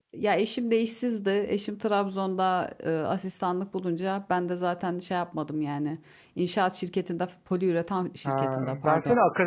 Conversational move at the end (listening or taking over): taking over